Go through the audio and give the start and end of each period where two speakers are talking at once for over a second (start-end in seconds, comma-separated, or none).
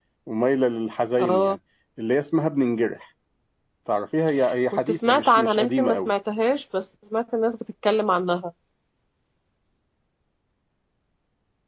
4.7-6.1